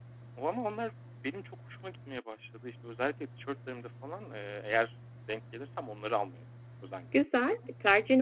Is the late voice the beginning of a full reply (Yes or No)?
Yes